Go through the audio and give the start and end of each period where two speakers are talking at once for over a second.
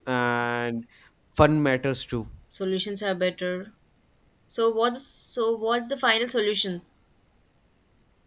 none

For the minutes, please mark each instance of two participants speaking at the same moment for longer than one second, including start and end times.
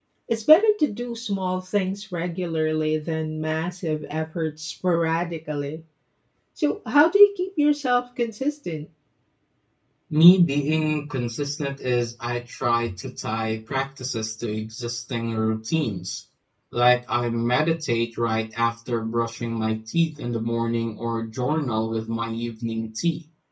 none

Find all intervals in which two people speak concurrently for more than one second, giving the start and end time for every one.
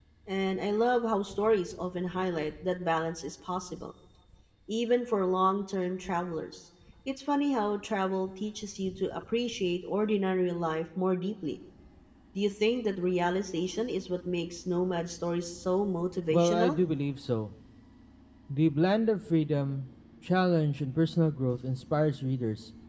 none

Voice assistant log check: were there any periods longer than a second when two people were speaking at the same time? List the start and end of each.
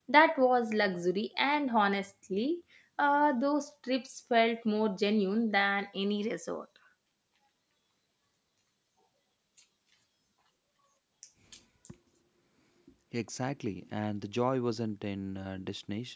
none

